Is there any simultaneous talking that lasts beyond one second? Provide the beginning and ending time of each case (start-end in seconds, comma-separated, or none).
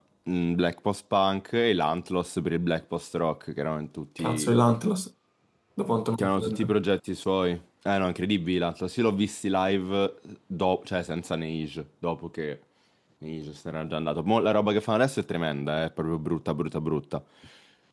none